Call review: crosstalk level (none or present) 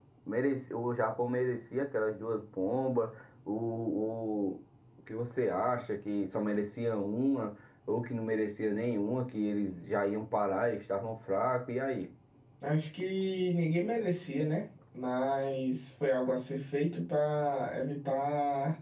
none